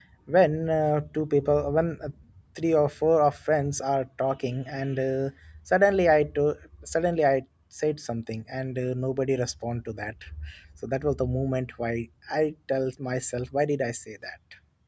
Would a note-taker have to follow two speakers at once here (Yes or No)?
No